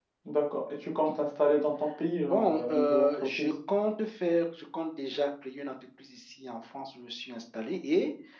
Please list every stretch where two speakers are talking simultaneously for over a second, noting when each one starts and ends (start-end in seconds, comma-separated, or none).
2.2-3.5